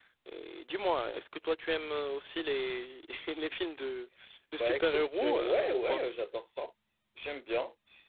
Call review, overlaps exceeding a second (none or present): present